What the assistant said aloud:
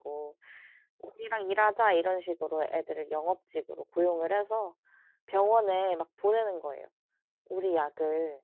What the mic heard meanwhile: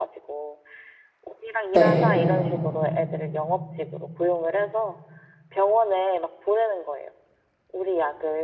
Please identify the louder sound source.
user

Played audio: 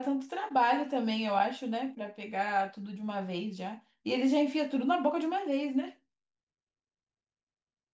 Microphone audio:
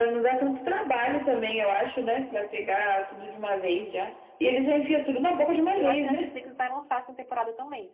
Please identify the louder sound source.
echo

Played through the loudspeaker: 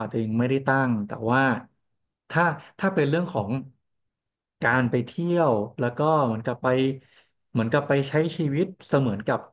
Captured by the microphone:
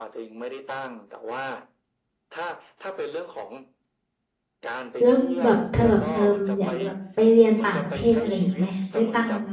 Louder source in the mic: user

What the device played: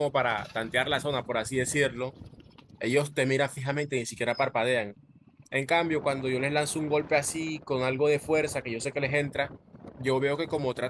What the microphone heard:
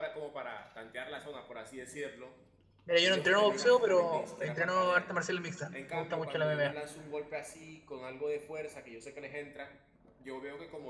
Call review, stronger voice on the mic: user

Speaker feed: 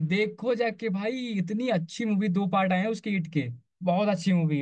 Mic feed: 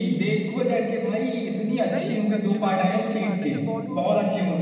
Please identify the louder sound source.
echo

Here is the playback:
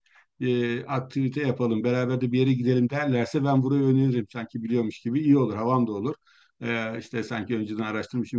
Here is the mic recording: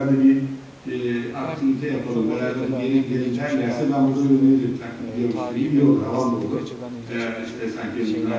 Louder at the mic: echo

